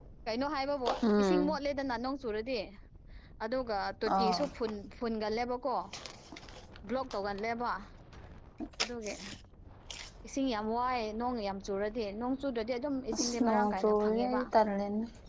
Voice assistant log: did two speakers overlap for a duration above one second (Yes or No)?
Yes